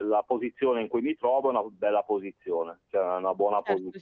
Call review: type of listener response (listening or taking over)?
taking over